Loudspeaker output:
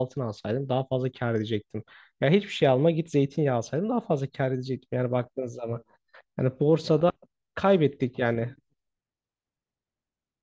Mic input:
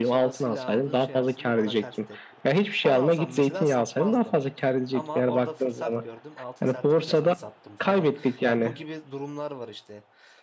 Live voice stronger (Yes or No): No